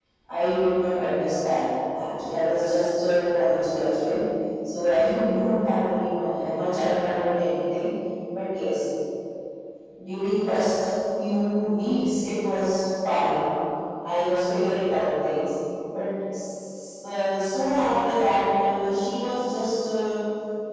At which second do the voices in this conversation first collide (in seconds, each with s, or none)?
none